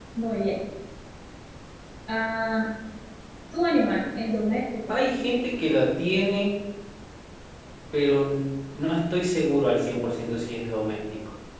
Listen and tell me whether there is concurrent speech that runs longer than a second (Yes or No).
No